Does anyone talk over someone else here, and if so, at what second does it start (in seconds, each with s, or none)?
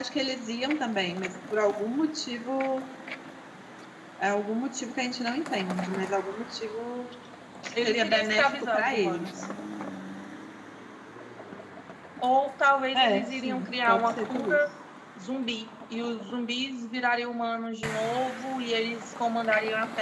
7.8 s